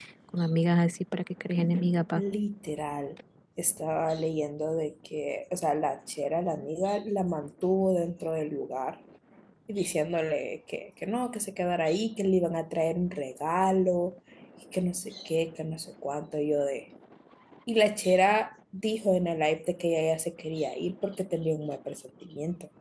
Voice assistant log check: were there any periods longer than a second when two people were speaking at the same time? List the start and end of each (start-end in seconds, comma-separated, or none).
none